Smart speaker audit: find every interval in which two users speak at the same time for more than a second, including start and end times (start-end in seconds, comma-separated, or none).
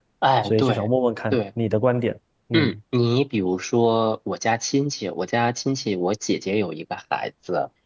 none